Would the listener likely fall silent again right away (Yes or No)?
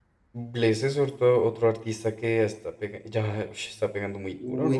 No